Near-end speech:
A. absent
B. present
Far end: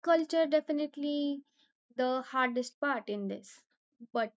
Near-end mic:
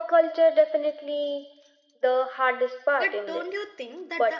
B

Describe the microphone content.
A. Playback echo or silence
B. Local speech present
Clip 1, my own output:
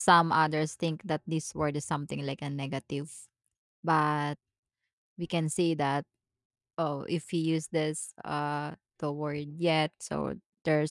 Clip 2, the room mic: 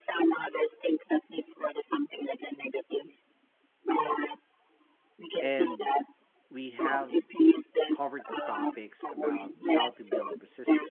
B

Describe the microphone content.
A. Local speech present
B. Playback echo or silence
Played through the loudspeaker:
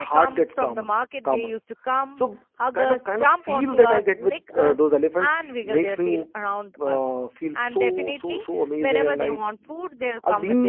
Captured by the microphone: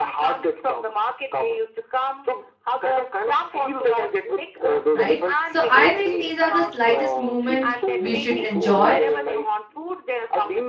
A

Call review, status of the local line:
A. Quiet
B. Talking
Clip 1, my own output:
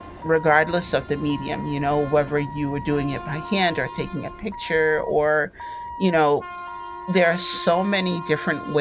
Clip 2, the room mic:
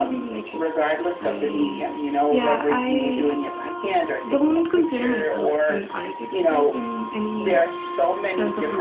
B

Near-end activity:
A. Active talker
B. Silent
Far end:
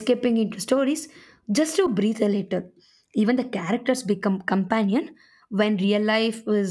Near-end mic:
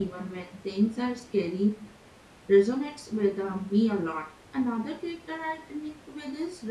A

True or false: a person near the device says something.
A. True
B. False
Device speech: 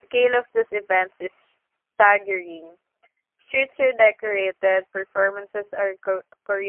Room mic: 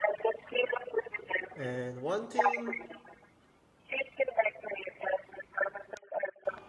A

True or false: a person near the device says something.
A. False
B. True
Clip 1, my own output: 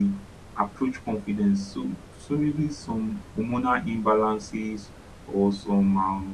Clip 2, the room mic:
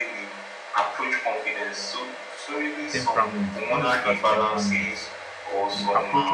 B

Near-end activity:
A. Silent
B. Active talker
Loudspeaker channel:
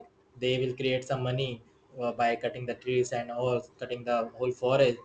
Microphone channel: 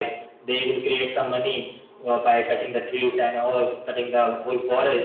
A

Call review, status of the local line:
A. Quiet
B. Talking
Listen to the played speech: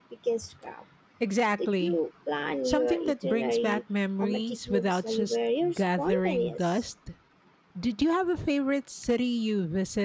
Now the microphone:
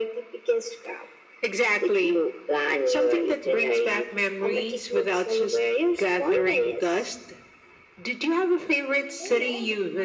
B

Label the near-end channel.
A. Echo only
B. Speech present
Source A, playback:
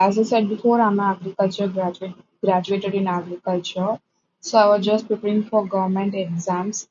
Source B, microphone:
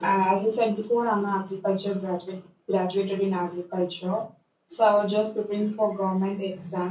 A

